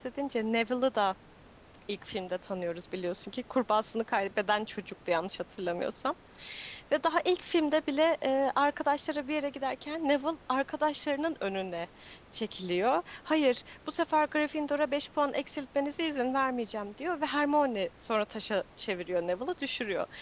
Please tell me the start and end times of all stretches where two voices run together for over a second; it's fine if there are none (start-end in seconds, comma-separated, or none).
none